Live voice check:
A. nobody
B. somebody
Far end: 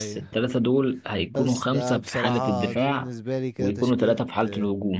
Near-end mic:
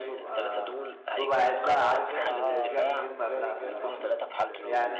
B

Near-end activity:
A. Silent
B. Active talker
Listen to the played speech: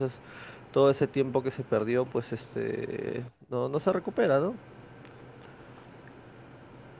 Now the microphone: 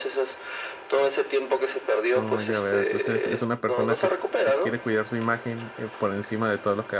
B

